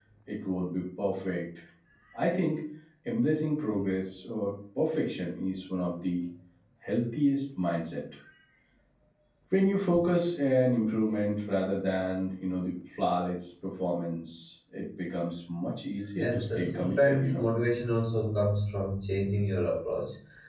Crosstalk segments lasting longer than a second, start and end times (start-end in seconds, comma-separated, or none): 16.2-17.5